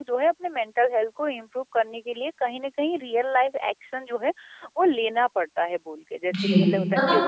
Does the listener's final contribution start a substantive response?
Yes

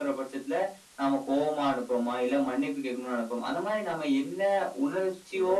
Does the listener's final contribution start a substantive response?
No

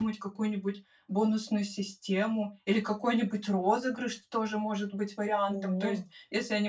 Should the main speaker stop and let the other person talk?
No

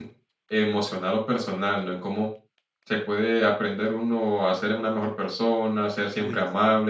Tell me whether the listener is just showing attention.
Yes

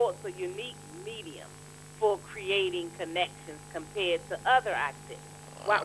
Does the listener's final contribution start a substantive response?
No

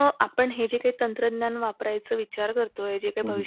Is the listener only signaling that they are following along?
Yes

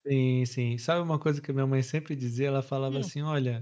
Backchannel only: Yes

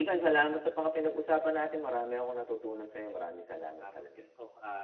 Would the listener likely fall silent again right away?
No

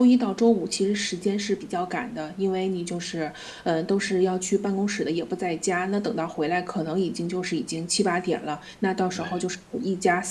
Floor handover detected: No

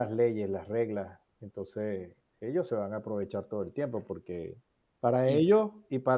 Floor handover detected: No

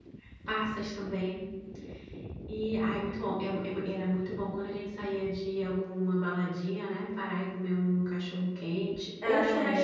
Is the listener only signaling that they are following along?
No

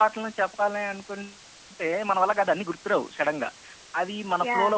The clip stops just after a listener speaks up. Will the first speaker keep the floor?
Yes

